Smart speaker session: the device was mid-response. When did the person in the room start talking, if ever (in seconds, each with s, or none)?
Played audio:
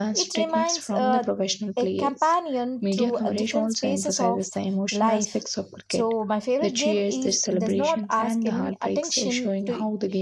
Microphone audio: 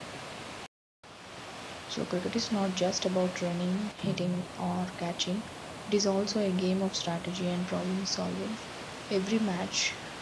1.9 s